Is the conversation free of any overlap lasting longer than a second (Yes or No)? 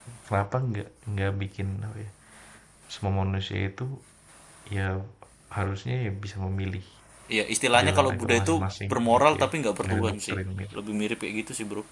No